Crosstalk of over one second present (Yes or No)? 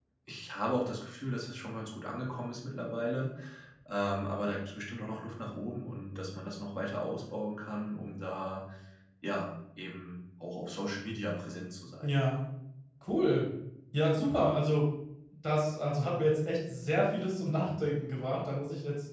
No